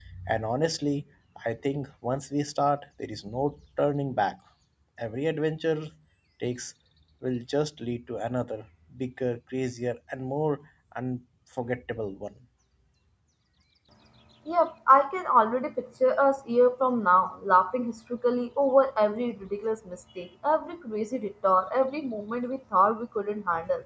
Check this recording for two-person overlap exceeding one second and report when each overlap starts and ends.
none

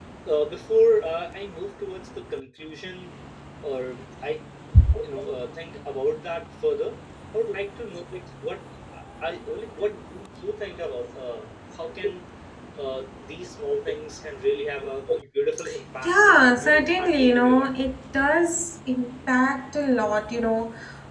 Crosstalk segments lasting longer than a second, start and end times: 16.0-17.7

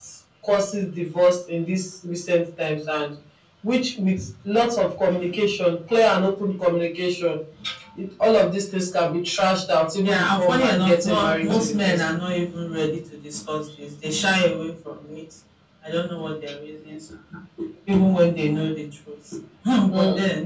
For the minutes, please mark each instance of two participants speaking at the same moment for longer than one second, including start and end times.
10.0-12.0

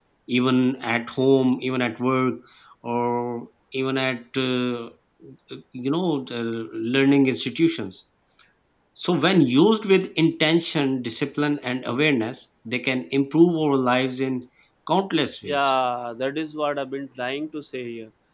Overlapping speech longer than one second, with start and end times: none

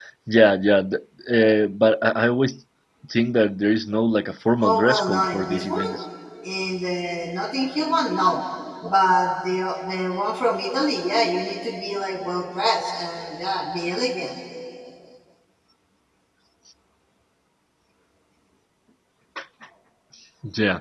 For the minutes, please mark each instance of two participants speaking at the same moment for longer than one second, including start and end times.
4.6-5.8

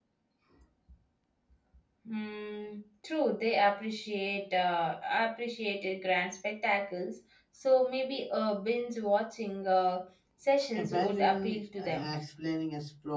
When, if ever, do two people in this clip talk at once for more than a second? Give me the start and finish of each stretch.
10.8-12.1

